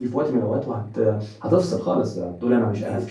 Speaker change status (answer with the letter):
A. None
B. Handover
A